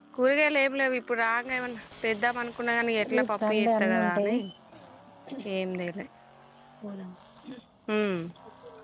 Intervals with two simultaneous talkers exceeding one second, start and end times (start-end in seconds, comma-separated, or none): 3.1-4.3